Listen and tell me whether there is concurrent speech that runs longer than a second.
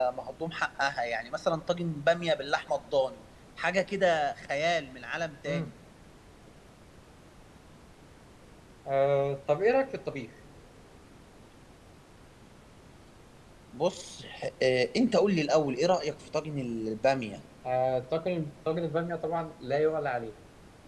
No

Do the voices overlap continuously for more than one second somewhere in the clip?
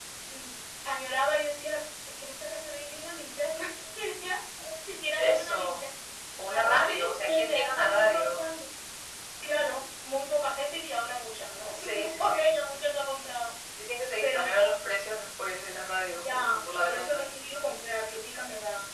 Yes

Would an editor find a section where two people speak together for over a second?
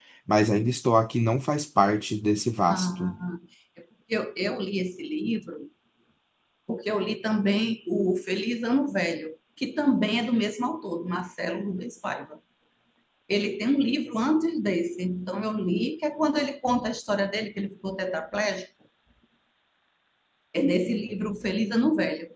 No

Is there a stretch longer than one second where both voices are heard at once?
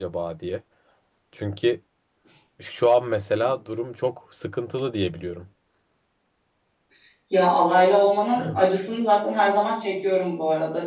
No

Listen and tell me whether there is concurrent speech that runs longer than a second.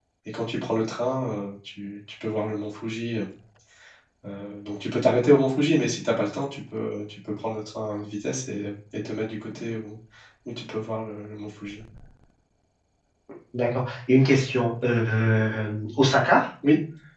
No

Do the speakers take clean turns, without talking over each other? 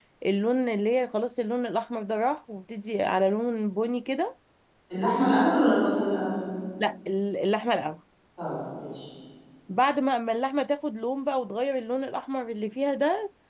Yes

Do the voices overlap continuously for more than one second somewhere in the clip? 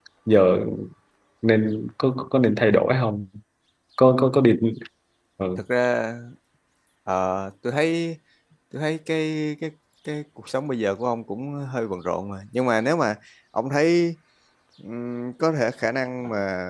No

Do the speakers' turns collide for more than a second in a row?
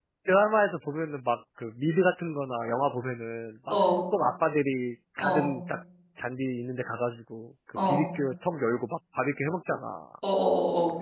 No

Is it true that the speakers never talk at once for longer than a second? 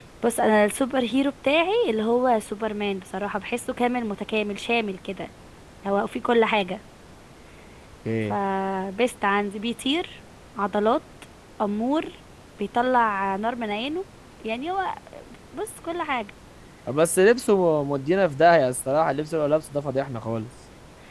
Yes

